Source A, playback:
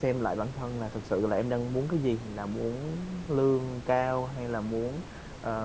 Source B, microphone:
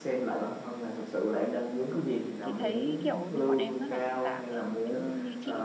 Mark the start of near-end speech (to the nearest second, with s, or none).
2 s